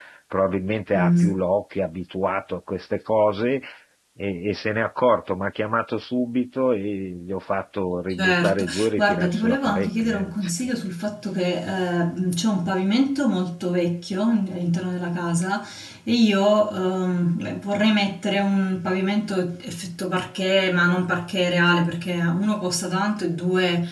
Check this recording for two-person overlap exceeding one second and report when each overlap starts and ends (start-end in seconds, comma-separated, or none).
8.1-10.0